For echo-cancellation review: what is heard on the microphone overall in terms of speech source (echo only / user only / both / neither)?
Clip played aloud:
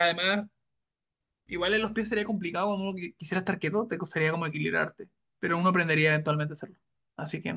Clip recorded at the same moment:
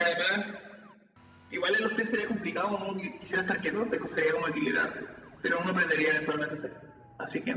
echo only